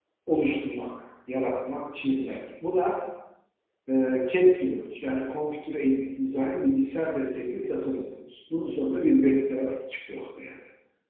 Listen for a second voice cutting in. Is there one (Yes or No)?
No